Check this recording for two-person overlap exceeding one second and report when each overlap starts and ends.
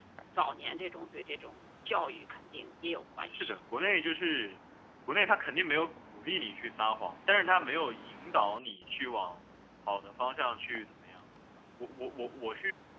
none

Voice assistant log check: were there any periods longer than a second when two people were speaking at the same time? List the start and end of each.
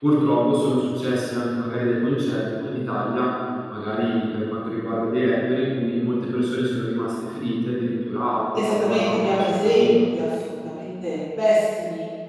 8.6-9.9

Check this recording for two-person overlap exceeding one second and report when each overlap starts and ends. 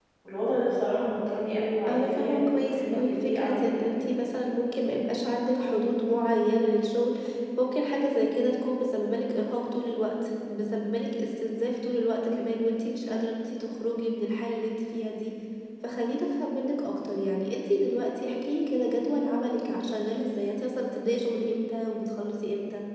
1.9-3.8

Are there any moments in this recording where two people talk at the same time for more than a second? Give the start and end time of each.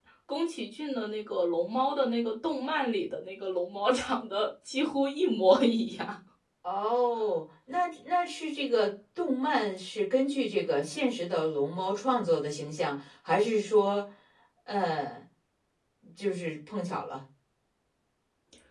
none

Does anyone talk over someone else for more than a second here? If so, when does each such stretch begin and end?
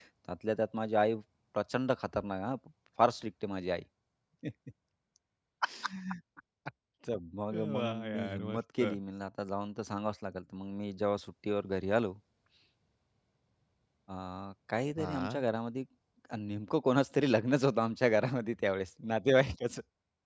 7.5-9.0

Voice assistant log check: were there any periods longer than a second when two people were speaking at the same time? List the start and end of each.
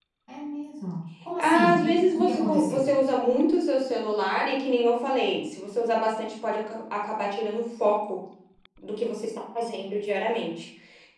1.4-2.8

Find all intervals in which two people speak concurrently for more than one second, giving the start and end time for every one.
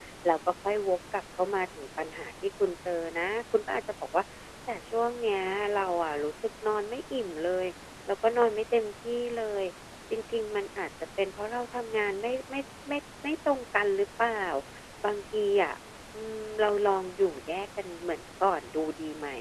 none

